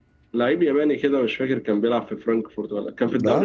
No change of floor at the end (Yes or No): Yes